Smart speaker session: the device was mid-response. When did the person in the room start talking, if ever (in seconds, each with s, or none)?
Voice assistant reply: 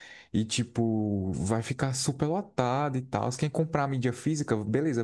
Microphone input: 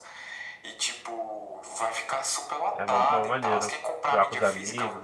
2.8 s